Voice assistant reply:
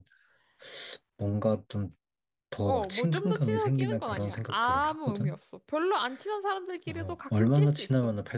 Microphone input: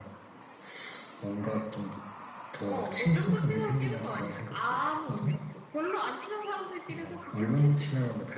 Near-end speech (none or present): none